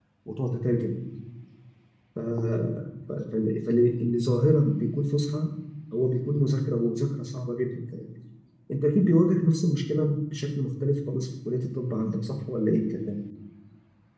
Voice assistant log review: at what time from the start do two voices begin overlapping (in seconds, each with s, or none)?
none